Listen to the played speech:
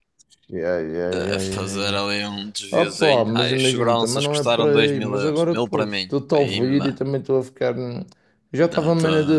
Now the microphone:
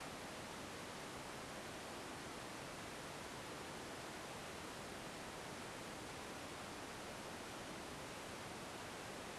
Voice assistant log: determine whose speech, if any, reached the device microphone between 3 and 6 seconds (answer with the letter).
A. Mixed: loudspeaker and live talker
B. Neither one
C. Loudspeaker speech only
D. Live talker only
B